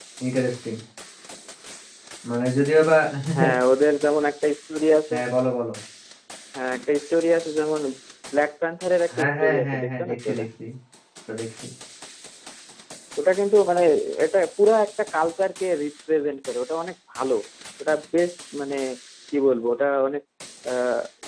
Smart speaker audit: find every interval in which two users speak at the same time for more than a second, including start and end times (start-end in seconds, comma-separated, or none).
9.2-10.4